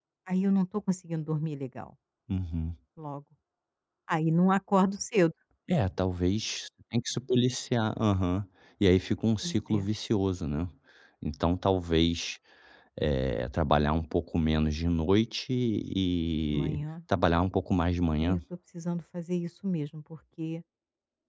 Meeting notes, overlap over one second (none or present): none